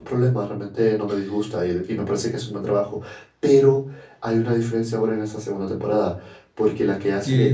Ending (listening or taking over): taking over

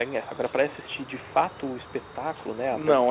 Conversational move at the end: taking over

